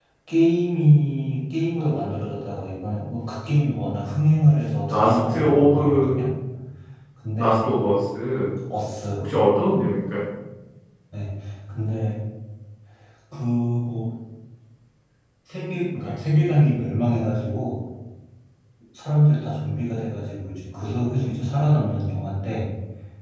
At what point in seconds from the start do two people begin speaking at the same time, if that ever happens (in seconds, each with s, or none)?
4.9 s